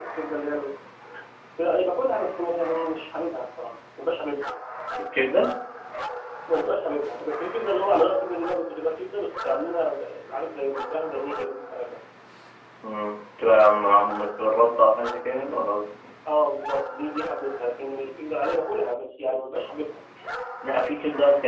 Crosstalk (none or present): none